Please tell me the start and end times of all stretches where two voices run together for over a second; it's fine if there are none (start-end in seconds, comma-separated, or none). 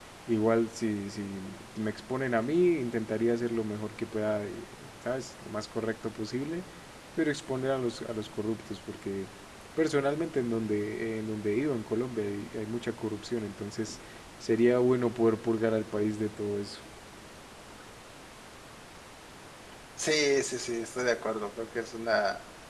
none